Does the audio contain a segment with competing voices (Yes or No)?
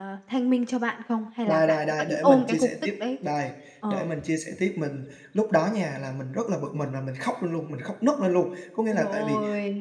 Yes